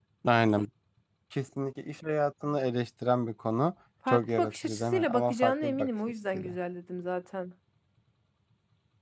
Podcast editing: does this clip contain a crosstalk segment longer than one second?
Yes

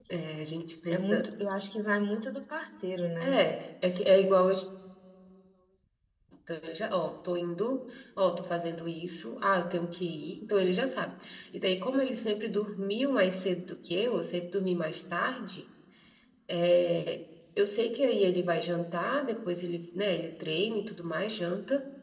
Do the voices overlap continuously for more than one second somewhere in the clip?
No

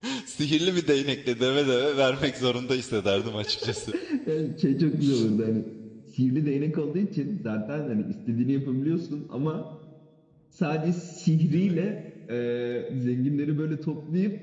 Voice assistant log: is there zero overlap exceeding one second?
Yes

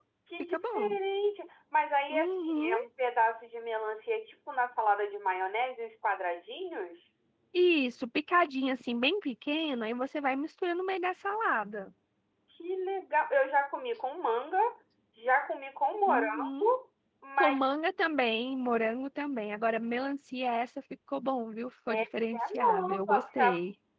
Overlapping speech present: Yes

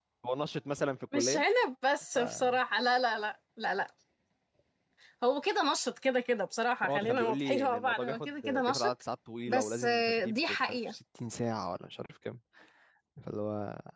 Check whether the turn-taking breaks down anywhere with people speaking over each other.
Yes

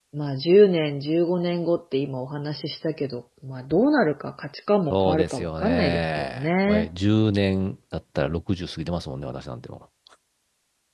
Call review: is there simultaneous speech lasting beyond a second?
Yes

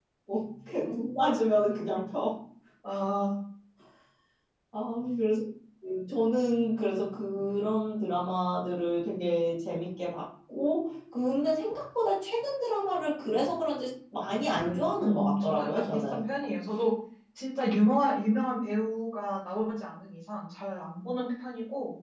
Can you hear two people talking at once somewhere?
Yes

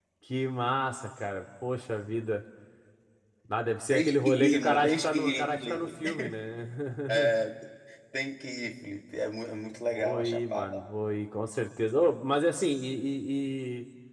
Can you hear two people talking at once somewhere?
Yes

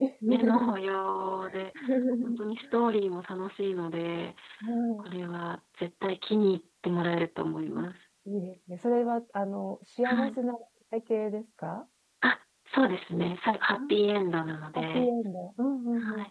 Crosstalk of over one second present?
No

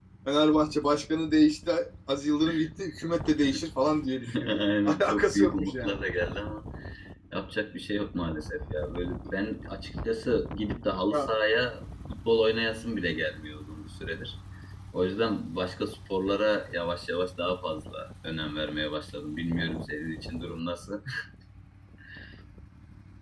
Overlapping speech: Yes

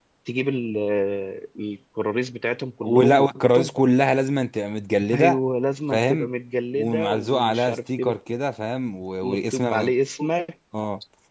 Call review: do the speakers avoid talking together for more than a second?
No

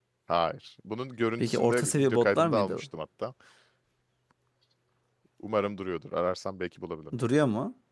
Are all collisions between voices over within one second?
No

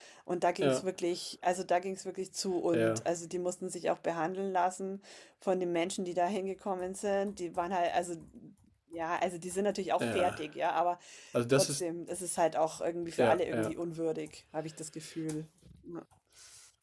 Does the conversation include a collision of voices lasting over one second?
No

